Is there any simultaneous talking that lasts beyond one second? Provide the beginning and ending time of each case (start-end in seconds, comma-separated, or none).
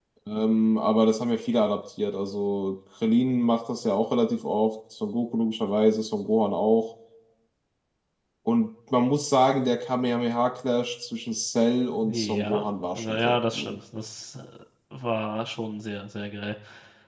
12.1-13.8